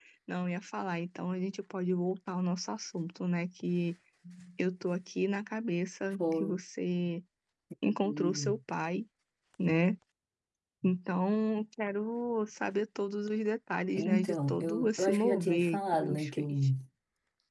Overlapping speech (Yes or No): Yes